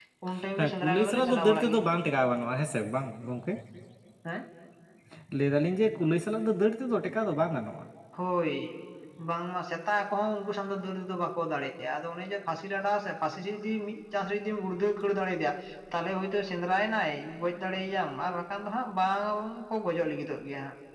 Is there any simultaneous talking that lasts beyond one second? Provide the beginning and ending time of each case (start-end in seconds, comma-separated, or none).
0.6-1.8